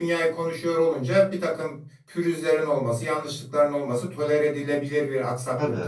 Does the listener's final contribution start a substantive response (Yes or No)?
Yes